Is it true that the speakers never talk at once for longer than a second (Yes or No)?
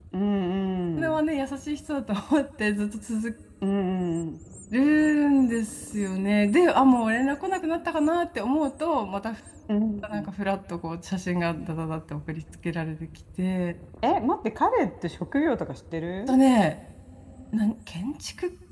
Yes